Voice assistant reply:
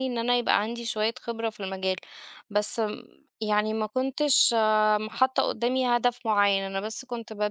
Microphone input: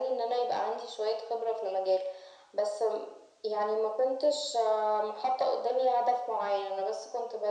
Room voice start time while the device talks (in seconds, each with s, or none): none